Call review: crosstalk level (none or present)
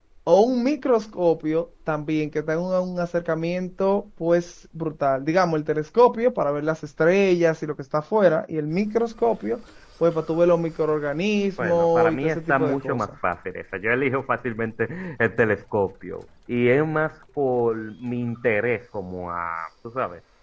present